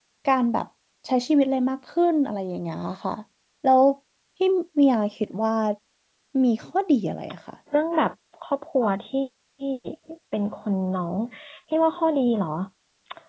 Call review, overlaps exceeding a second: none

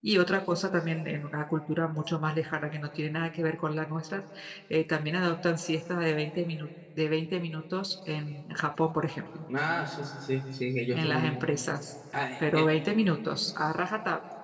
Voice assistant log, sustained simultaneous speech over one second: none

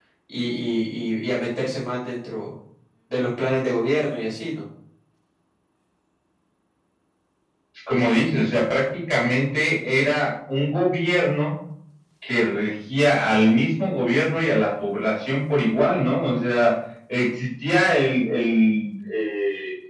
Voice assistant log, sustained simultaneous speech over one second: none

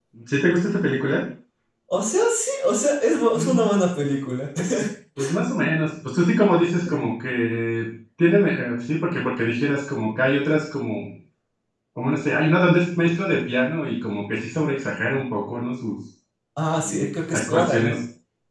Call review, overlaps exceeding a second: present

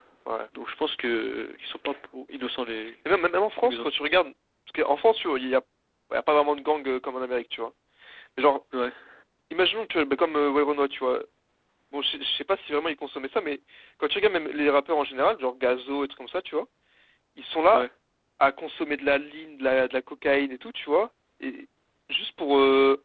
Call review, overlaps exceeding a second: none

